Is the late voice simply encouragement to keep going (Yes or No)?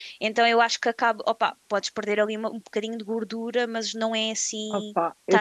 No